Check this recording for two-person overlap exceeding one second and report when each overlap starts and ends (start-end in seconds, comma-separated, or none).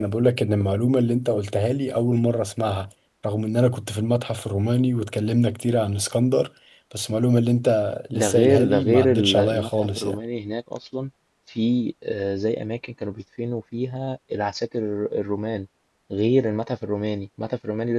8.1-10.2